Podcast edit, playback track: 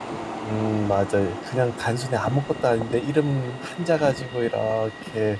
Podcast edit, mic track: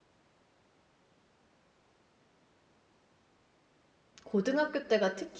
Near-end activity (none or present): present